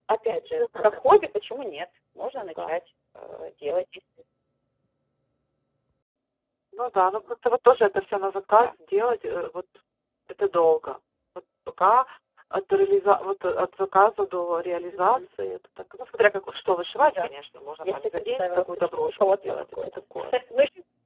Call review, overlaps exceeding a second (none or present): present